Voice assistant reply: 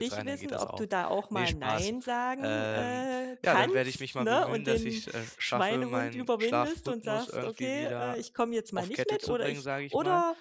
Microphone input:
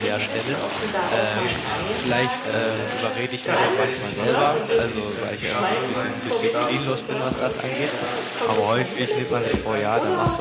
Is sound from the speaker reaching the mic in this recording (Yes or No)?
Yes